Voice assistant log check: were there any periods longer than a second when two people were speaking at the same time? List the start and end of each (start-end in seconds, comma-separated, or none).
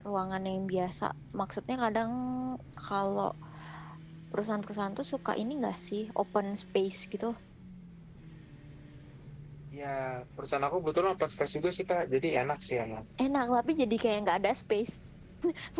none